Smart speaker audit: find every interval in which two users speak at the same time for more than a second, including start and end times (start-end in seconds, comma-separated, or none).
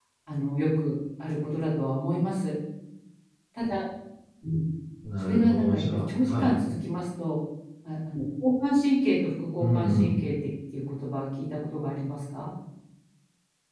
5.2-6.5